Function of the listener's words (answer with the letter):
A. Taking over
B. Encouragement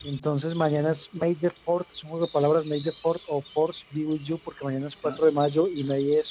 B